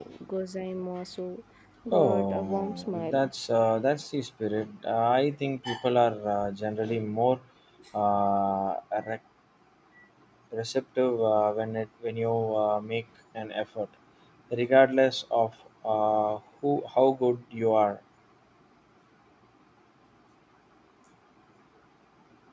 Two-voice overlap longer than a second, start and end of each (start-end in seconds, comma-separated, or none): 1.9-3.3